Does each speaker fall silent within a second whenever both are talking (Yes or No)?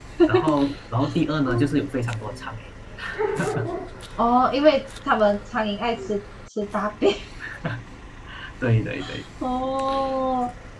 Yes